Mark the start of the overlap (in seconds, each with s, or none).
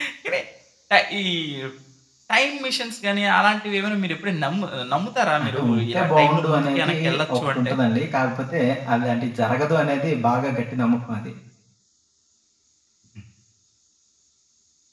5.4 s